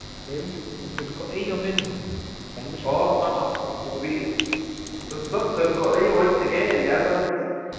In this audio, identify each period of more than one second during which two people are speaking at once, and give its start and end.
none

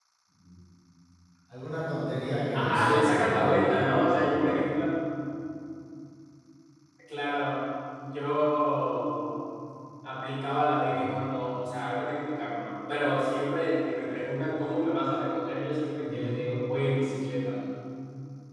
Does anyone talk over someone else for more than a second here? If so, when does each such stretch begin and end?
2.5-4.4

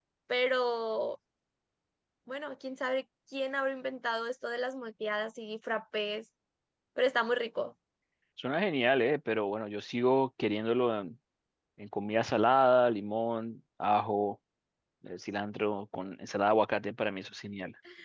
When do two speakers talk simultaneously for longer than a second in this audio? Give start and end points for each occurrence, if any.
none

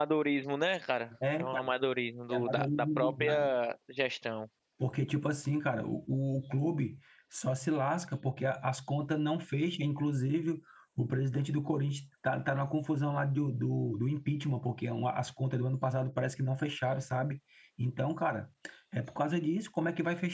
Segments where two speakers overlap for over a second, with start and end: 2.3-3.5

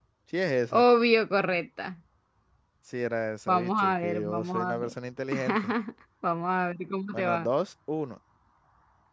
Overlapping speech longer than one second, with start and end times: 3.5-4.9

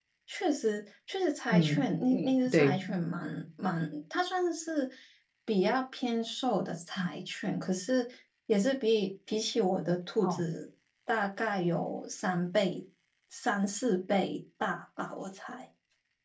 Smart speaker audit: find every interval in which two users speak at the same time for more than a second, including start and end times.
1.5-2.8

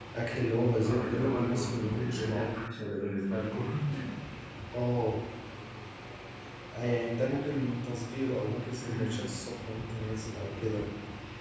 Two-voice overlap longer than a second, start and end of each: 0.8-2.7

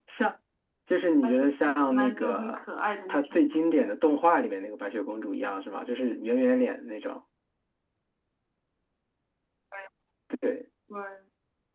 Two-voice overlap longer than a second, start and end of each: 1.2-2.6

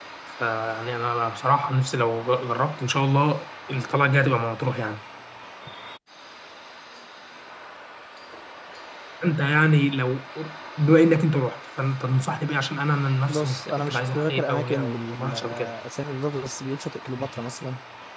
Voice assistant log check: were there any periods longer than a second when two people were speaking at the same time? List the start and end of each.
13.3-15.7

